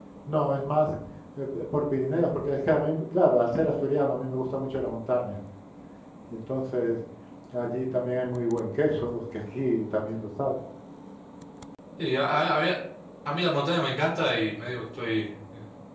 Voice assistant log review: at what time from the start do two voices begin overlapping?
none

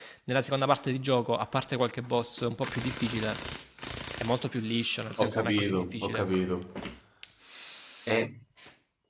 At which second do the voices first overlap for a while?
5 s

